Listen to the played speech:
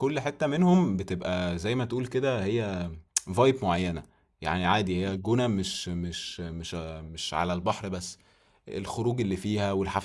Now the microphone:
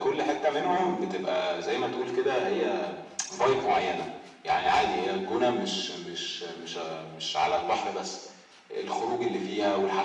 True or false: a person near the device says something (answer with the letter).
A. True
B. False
B